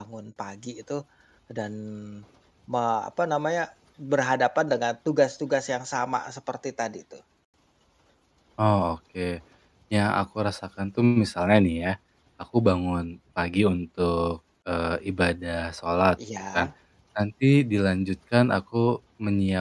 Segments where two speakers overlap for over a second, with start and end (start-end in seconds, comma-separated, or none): none